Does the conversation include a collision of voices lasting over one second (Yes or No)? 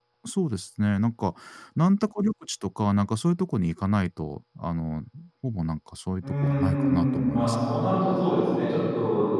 Yes